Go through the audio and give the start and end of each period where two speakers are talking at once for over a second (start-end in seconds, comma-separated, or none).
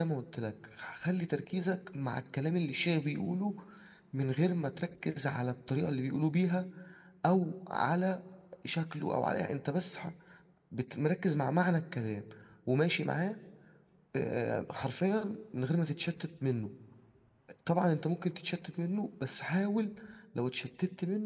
none